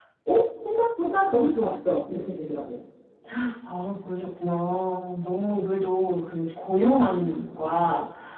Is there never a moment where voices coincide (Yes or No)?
Yes